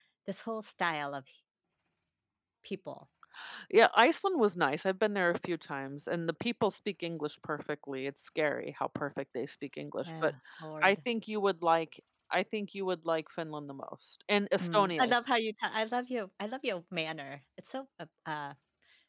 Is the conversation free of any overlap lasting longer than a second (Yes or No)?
Yes